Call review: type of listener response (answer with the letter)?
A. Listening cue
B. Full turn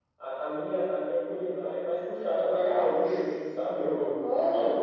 A